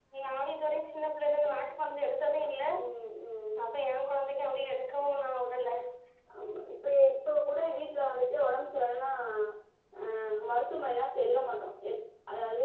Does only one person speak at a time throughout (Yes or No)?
Yes